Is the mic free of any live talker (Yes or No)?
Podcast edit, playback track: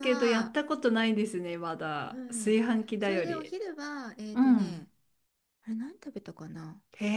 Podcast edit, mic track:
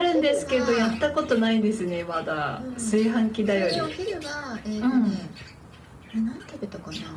Yes